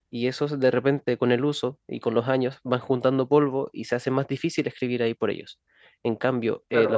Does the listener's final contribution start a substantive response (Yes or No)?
Yes